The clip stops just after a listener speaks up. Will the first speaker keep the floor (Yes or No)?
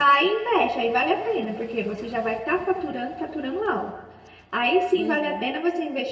Yes